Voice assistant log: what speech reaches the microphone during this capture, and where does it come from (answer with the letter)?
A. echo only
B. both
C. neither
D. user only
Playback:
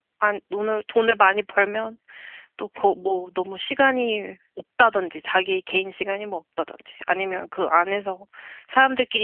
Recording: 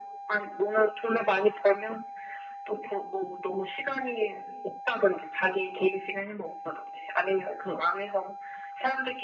A